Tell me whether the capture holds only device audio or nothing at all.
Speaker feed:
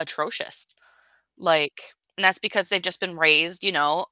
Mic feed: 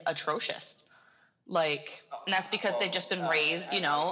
No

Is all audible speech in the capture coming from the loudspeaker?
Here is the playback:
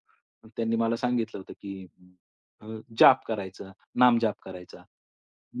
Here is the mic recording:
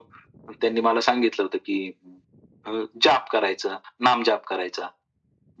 Yes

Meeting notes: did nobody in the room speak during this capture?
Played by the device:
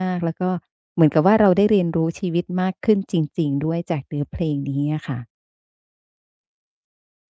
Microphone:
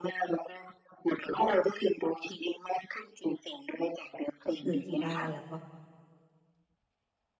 No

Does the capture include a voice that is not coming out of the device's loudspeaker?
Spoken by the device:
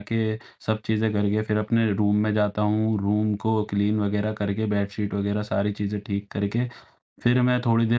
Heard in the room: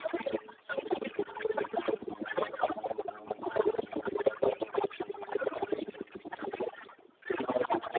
No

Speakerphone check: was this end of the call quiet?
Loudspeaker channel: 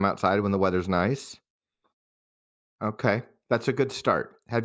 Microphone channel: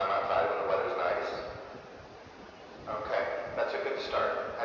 Yes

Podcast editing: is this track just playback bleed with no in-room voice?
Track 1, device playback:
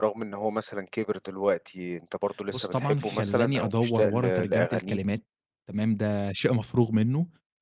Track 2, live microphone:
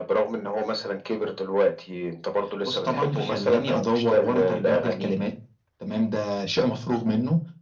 Yes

